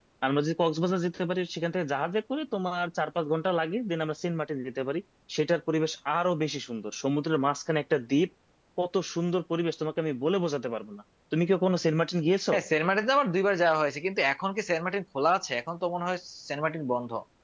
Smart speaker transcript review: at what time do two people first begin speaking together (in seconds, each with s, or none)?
none